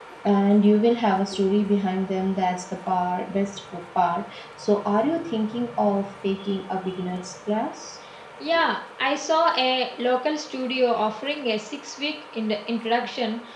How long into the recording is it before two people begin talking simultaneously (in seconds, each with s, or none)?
none